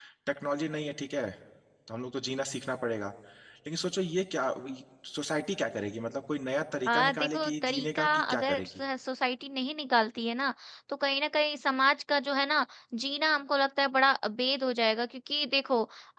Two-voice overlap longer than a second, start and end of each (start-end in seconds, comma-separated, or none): 6.9-8.7